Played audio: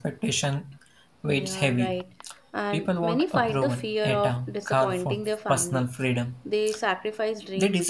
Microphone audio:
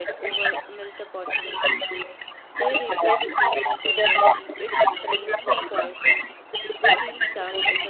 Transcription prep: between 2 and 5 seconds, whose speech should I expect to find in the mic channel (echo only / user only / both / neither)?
both